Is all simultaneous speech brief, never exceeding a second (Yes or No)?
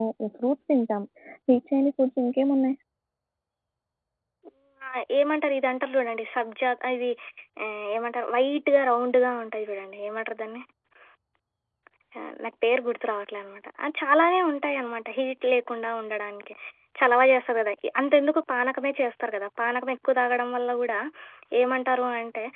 Yes